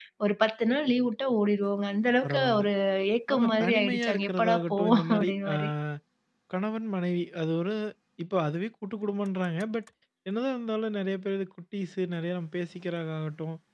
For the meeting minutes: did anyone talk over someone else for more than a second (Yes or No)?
Yes